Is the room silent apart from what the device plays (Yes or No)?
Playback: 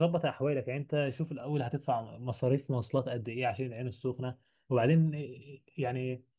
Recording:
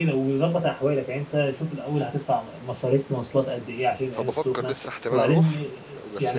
No